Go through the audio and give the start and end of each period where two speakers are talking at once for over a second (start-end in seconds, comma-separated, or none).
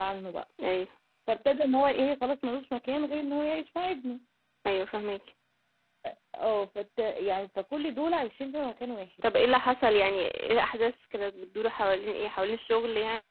none